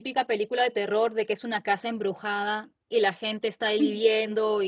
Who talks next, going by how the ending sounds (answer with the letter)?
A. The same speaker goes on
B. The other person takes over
A